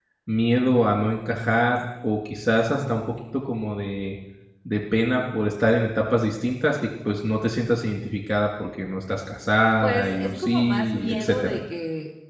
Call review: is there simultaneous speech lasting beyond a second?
Yes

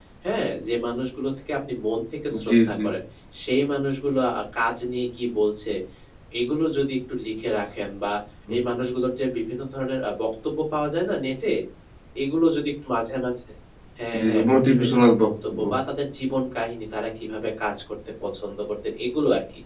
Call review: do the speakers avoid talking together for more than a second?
No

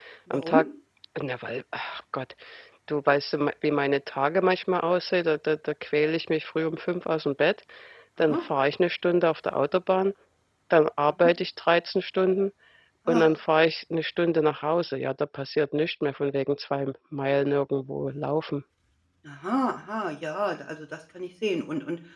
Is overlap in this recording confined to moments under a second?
Yes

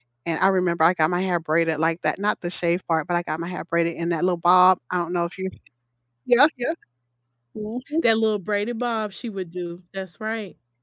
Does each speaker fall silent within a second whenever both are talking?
Yes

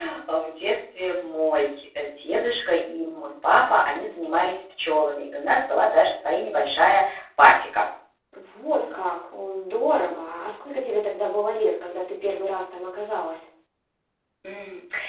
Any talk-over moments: No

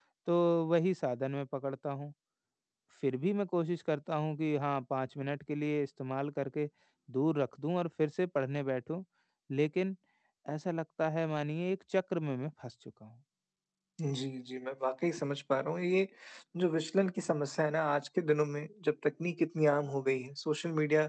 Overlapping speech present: No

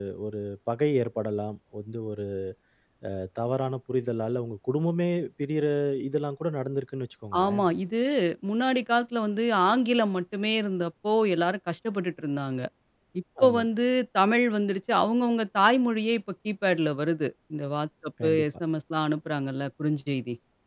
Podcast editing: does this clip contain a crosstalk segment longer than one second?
No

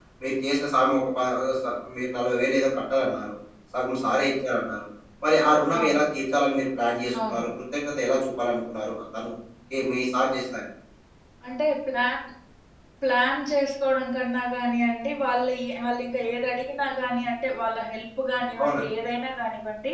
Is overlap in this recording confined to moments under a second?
Yes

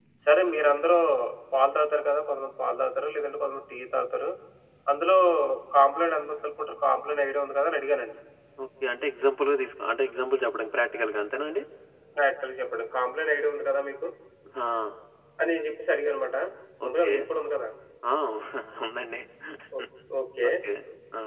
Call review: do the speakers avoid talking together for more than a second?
Yes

